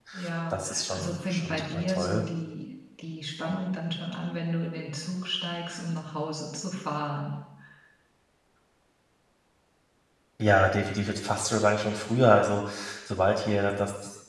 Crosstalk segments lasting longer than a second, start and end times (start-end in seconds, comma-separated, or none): 0.5-2.2